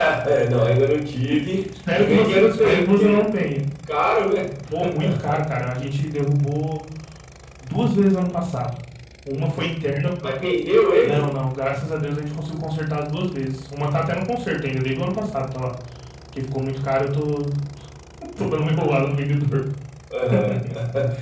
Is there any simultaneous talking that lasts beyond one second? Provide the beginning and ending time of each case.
1.9-3.2

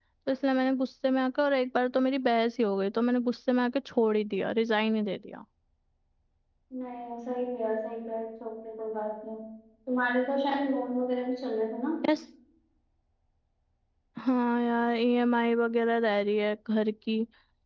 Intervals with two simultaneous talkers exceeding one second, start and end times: none

